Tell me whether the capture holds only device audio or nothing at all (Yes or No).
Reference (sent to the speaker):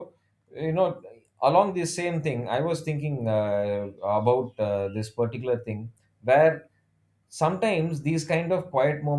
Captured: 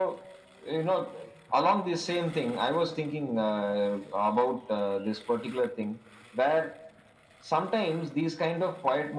Yes